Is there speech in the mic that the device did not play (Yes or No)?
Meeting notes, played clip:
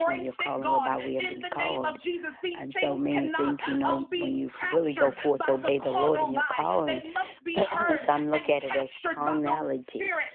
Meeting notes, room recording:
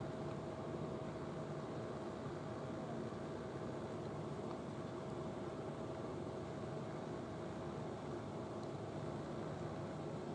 No